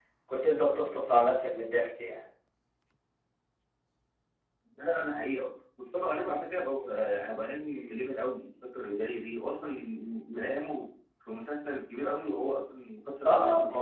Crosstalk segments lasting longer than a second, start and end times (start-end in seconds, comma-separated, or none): none